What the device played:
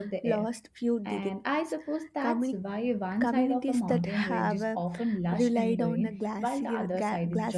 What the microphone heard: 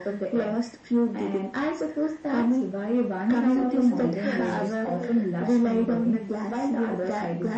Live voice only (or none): it's a beautiful process called